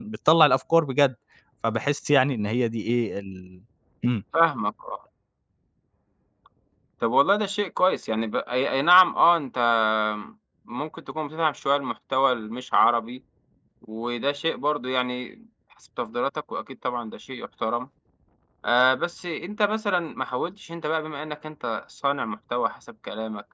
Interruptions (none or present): none